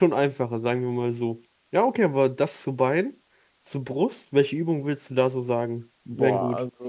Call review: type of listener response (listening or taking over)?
taking over